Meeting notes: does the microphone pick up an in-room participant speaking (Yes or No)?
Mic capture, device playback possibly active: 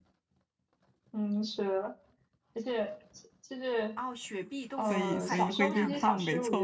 Yes